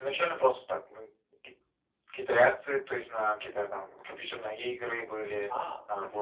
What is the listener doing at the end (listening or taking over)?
listening